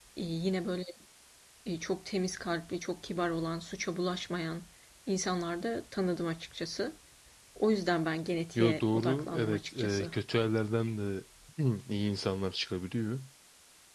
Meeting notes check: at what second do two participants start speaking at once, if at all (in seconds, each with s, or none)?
8.6 s